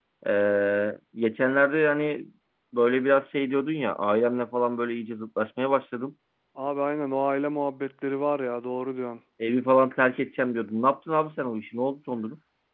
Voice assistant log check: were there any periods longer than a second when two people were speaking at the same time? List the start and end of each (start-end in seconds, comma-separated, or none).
none